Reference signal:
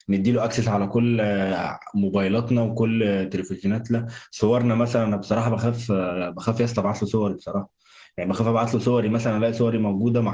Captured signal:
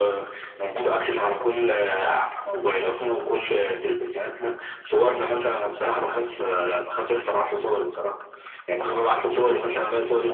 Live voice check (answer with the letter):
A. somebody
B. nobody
B